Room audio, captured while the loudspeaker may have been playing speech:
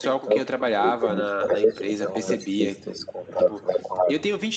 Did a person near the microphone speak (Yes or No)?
Yes